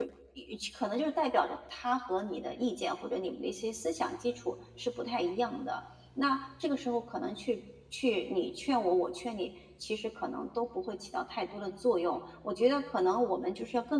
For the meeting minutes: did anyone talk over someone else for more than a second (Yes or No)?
No